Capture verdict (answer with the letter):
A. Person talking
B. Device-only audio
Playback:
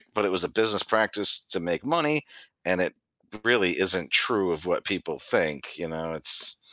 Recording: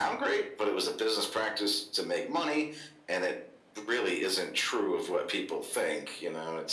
B